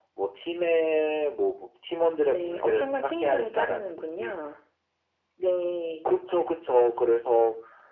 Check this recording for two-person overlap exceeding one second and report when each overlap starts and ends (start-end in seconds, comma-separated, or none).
2.3-4.3